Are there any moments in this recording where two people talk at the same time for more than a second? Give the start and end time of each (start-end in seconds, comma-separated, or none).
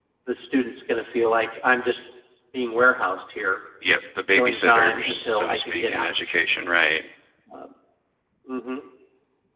4.3-6.1